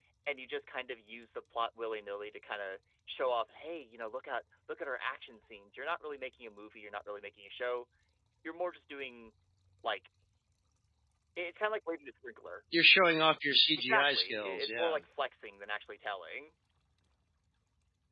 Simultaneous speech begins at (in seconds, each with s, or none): 13.8 s